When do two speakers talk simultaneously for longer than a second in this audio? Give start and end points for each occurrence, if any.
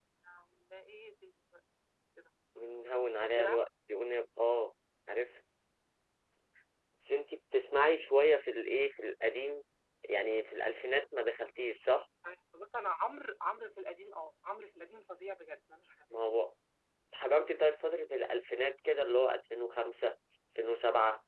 none

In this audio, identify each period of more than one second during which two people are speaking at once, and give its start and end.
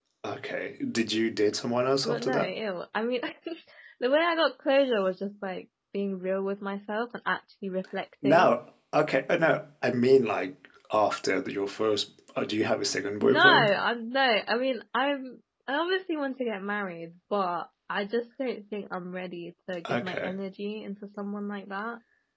none

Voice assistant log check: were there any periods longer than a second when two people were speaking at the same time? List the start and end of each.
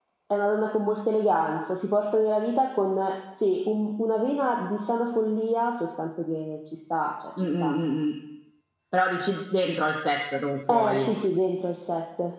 none

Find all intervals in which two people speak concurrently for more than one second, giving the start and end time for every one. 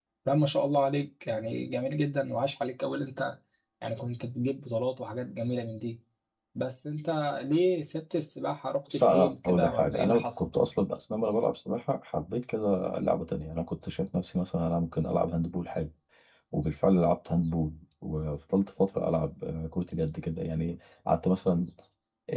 8.9-10.5

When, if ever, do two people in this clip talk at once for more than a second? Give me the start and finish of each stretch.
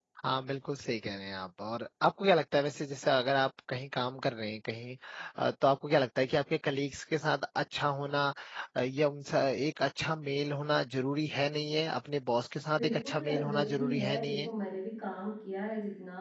12.8-14.5

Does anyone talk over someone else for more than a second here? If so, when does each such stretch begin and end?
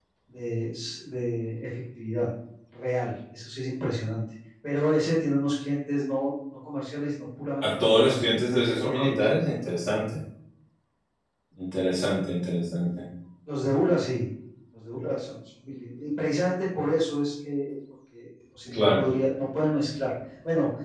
7.6-9.3

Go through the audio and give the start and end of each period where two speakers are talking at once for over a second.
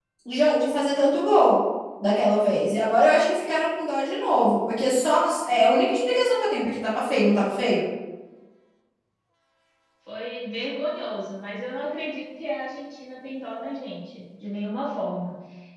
none

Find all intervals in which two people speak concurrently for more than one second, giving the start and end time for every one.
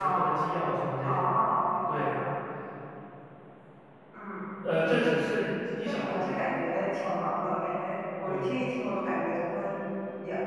none

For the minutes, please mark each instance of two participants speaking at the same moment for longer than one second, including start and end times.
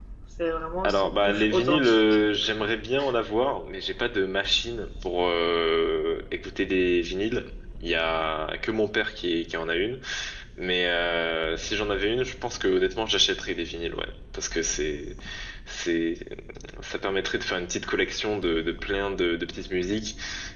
0.8-2.0

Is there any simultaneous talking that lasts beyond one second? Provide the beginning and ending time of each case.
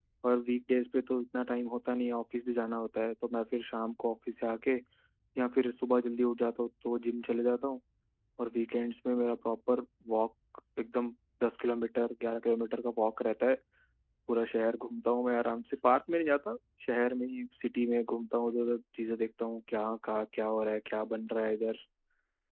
none

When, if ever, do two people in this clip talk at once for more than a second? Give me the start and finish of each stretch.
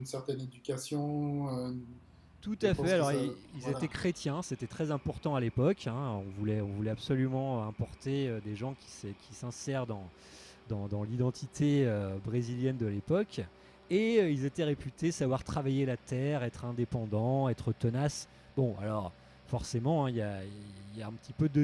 2.6-3.9

